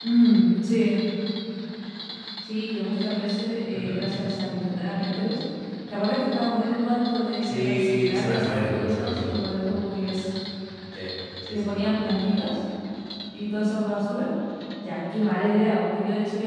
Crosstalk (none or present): present